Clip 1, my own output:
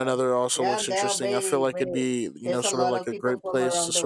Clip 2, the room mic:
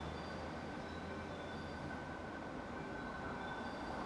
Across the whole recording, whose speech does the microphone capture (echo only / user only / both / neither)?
neither